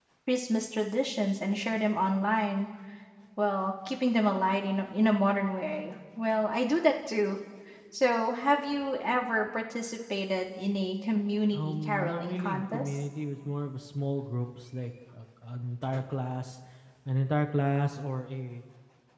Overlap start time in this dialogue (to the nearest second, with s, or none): 12 s